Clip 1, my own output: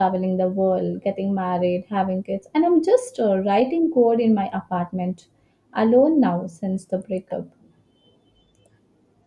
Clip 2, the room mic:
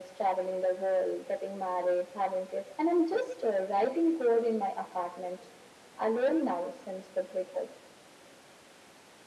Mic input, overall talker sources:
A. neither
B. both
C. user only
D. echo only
D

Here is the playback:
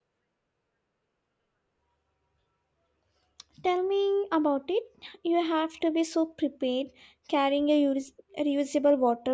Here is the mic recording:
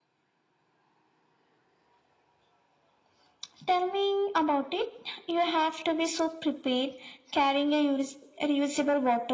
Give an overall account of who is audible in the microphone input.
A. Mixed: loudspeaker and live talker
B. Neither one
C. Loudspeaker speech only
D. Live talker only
C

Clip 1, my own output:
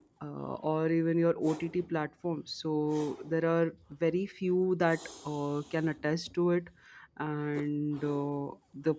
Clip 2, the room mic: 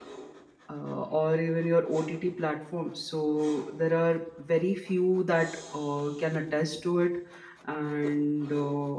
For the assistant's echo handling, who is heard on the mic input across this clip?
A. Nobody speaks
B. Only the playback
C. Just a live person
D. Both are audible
B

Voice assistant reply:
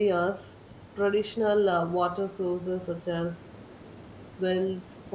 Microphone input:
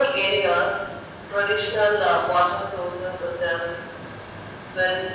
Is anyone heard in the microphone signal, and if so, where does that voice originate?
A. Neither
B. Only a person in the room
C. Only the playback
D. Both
C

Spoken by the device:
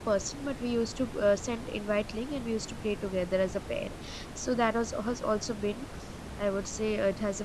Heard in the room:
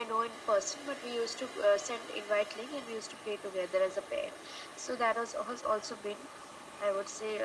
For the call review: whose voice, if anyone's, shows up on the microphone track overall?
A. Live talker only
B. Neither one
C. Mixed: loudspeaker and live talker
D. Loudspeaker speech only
D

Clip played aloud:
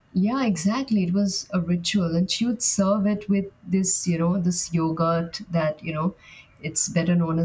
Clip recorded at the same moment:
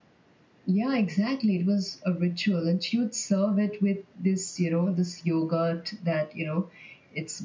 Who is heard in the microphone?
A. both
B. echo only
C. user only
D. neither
B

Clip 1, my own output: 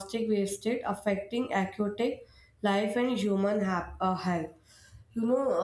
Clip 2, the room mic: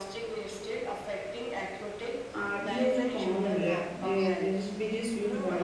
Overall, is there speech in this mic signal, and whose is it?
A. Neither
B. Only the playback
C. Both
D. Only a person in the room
C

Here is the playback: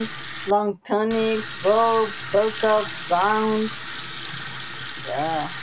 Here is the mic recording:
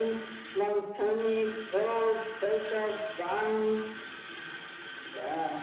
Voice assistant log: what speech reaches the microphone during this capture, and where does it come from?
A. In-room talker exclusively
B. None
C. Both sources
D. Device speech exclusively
D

